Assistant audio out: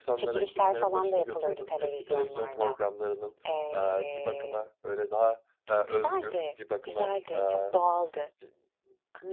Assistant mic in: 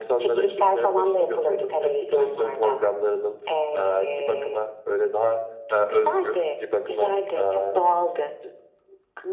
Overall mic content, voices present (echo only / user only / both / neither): echo only